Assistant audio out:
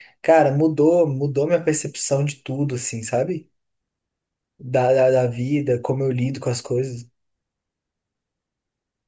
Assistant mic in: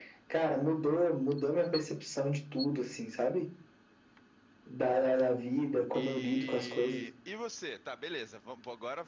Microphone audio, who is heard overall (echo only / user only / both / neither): both